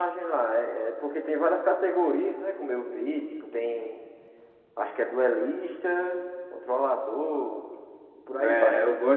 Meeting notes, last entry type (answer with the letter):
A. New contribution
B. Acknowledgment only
A